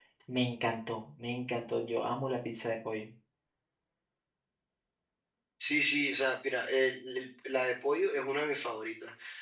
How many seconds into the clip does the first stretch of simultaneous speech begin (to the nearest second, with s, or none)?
none